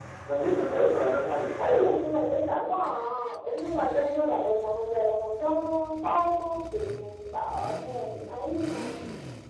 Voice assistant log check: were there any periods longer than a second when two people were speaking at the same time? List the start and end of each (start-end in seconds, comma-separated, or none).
none